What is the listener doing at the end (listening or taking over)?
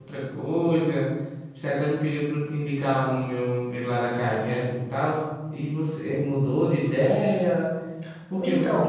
listening